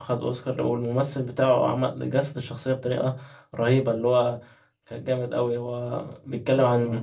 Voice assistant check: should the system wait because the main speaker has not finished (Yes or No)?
Yes